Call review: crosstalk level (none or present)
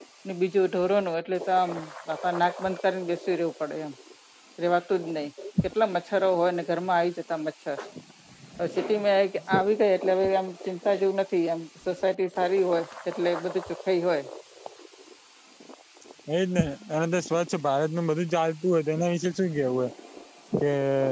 none